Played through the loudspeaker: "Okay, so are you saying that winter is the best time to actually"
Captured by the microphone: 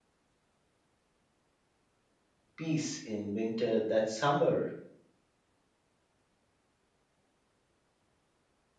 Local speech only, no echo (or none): peace in winter that summer